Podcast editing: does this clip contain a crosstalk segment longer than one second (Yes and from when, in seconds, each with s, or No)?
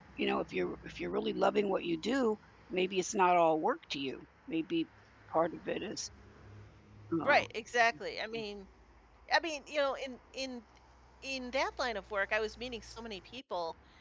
No